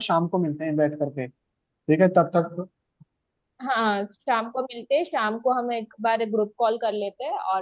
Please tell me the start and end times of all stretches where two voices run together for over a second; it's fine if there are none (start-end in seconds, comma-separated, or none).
none